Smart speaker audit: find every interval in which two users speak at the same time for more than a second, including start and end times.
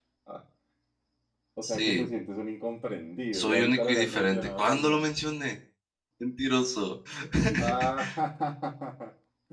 3.3-5.1

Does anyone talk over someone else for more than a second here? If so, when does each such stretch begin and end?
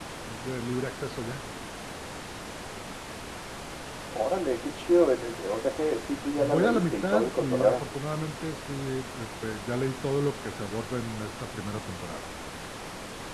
6.4-7.8

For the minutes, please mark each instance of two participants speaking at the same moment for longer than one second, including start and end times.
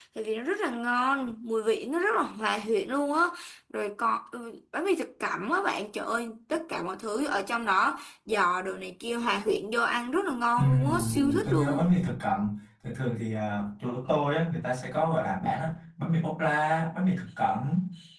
10.6-11.9

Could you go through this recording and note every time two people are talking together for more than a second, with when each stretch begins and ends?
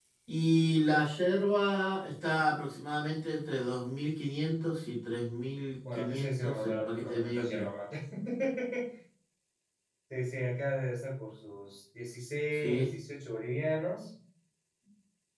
6.0-7.7

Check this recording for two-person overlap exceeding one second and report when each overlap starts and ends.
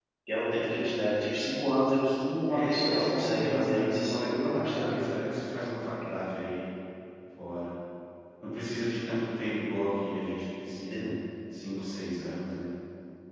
2.5-5.0

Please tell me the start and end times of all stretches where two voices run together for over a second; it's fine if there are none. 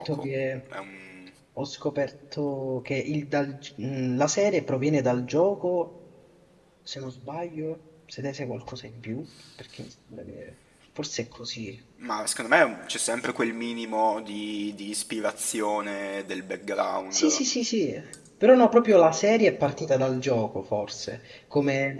none

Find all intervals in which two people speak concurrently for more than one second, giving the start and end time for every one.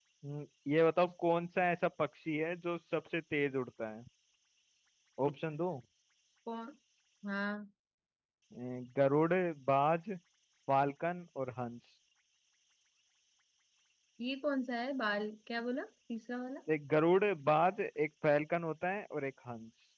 none

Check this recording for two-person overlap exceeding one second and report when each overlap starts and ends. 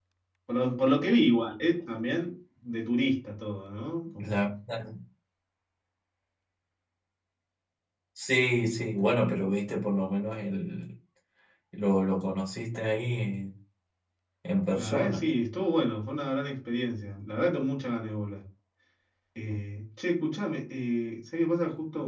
none

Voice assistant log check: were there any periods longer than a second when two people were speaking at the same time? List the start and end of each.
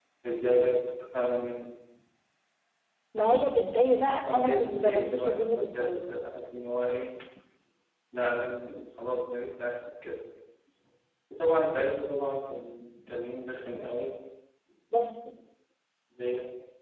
4.2-5.9

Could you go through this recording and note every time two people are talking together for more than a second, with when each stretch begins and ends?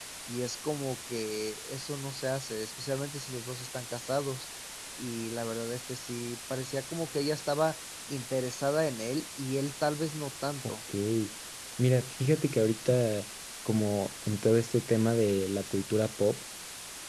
none

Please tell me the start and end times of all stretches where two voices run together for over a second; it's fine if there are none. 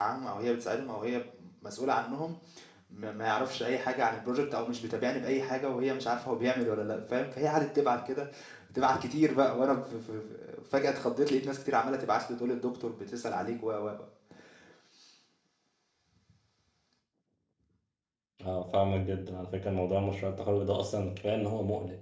none

